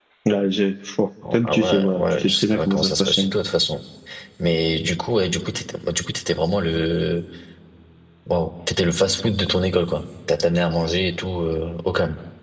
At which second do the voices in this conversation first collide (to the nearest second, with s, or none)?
1 s